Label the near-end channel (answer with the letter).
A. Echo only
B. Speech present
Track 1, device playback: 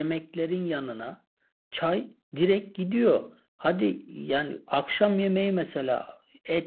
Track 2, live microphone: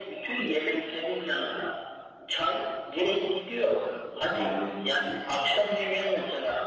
B